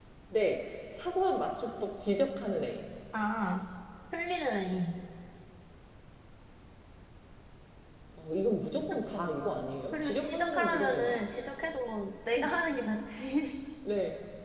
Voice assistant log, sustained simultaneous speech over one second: present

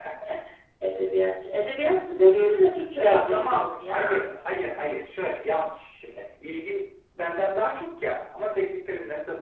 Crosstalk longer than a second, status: present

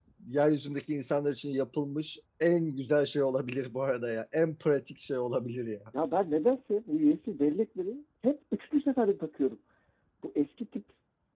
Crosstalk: none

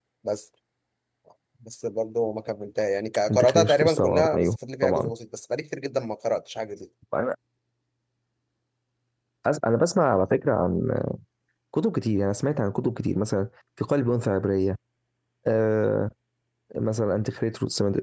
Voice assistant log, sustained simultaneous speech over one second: present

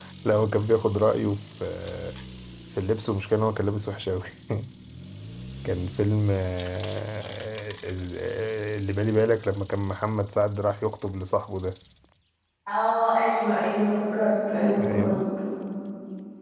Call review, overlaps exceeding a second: none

